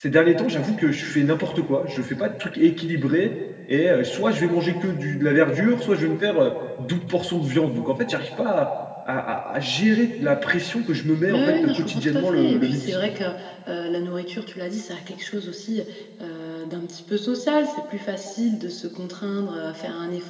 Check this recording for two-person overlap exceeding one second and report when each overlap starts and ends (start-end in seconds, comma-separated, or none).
11.3-12.9